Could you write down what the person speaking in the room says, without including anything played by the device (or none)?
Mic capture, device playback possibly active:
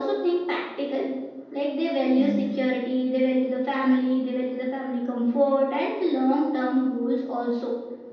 hmm